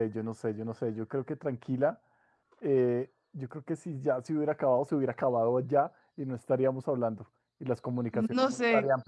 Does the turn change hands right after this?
Yes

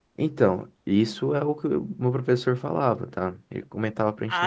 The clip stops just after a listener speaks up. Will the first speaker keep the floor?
No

